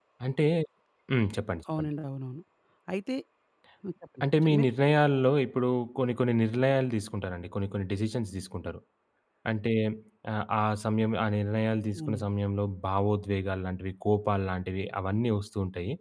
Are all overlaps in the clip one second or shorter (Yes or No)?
Yes